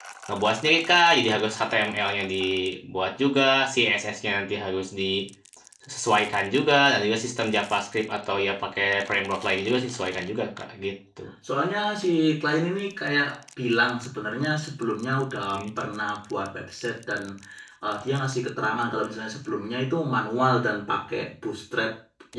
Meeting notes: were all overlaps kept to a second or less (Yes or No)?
Yes